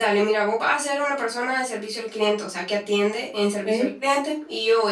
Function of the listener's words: listening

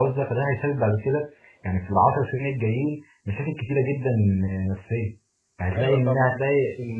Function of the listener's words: listening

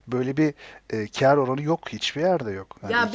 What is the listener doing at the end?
taking over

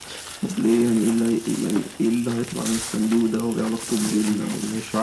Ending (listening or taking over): taking over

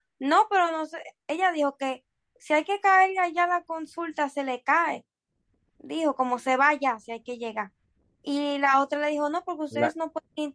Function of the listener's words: listening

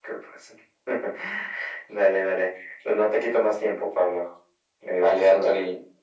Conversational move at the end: taking over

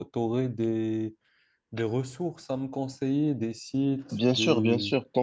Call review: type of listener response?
taking over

